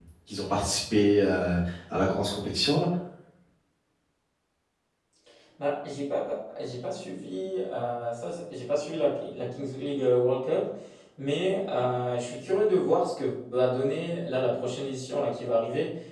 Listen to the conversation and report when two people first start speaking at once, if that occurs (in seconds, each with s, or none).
none